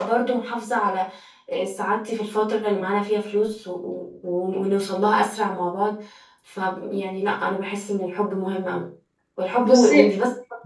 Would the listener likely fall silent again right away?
Yes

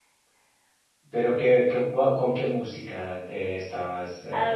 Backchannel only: No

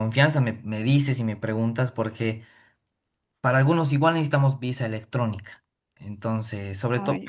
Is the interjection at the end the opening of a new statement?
No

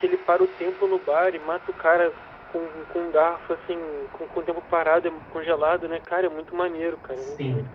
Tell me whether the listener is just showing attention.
No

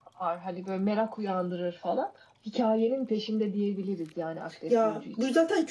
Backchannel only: No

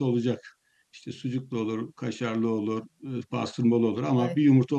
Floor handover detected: No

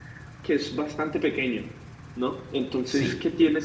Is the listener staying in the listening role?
Yes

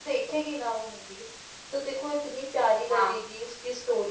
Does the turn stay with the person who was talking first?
Yes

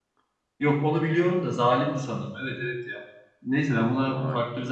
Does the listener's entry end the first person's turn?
No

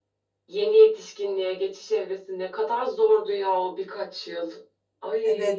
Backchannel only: No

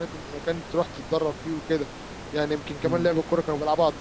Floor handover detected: No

